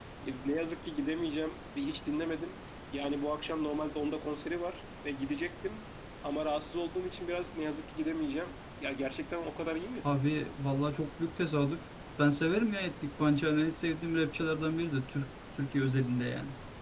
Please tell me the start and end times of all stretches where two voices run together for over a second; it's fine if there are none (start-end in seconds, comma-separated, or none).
none